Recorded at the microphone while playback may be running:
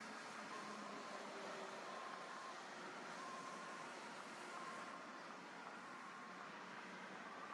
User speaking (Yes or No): No